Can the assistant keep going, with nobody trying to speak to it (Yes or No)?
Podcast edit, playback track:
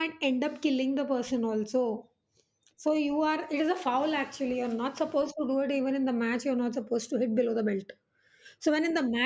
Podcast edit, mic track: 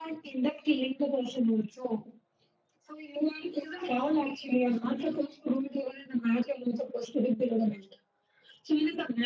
Yes